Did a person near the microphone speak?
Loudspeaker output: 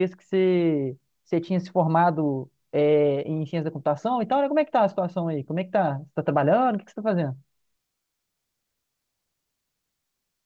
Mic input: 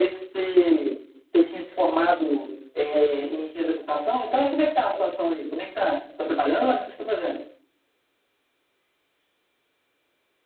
No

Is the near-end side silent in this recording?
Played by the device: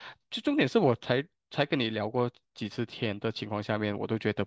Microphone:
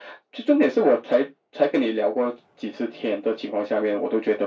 Yes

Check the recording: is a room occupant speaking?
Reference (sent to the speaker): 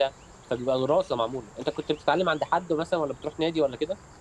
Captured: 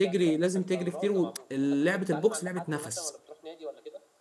Yes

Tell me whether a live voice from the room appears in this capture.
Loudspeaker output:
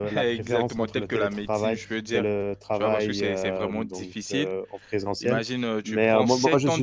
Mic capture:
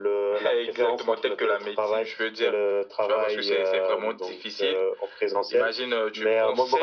No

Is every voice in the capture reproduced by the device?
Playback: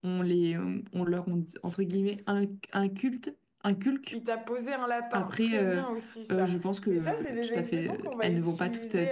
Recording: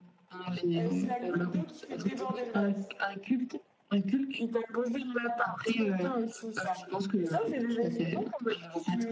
No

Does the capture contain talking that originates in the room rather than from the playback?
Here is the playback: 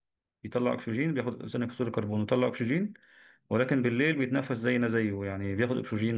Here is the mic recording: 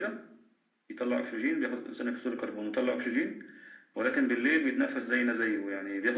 No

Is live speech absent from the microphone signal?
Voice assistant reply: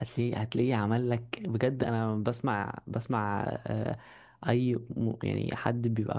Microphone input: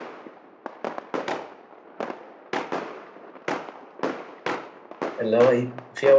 No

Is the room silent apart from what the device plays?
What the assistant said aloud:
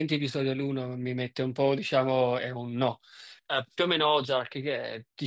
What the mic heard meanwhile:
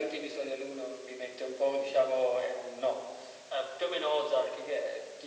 Yes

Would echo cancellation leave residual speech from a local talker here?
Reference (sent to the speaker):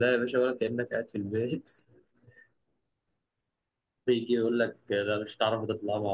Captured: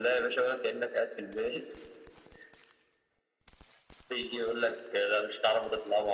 No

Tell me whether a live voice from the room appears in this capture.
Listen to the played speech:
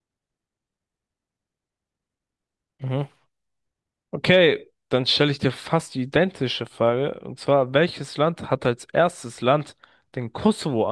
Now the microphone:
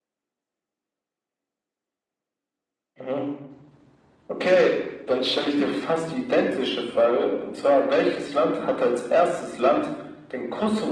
No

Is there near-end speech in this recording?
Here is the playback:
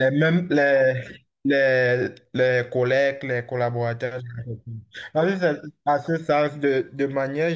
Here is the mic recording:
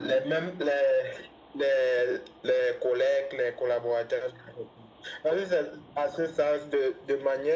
No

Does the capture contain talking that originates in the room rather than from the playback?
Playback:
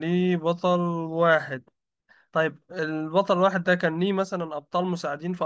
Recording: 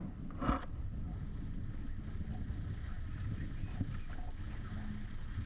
No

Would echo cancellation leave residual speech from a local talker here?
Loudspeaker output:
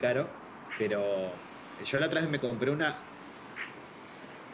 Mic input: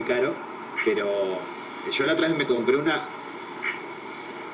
No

